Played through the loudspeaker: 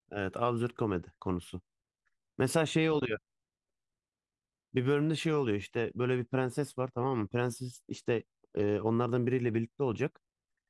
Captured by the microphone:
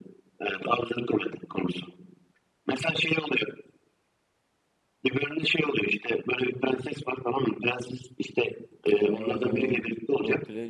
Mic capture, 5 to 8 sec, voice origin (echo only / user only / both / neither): echo only